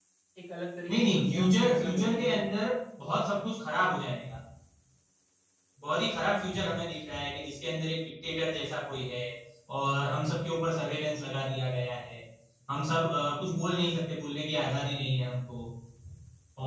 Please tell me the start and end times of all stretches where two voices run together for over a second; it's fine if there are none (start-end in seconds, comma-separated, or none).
0.9-2.4